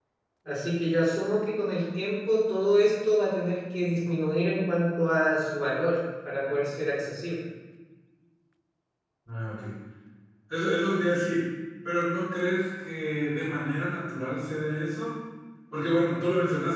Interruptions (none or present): none